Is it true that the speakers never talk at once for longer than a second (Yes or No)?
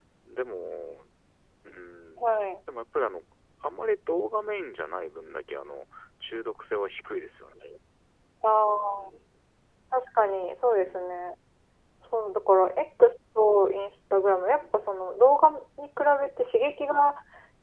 Yes